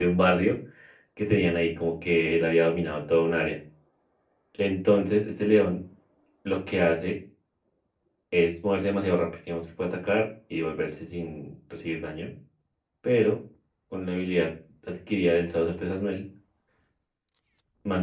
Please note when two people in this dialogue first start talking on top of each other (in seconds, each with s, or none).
none